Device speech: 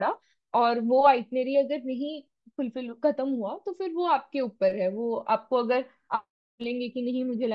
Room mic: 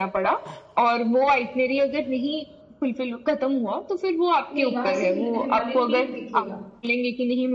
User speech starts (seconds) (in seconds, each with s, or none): 4.5 s